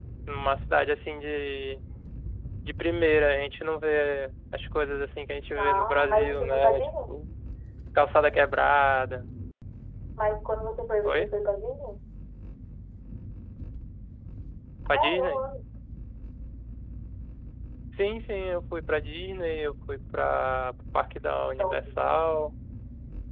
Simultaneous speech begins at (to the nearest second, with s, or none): 6 s